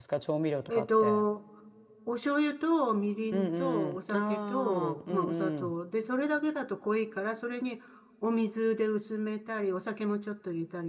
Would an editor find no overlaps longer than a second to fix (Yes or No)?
No